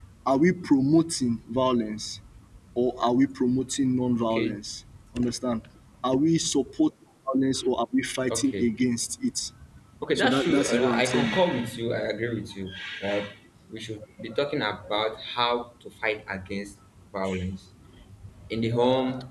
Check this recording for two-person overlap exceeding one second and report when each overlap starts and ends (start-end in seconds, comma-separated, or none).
10.2-11.4